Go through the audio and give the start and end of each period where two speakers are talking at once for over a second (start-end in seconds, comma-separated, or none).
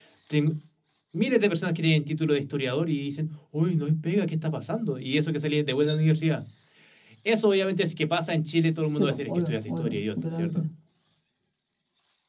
8.9-10.7